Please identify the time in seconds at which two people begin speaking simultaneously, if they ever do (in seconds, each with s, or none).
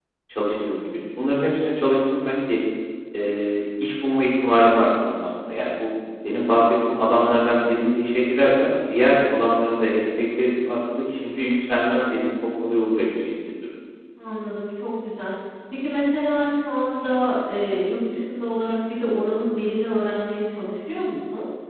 none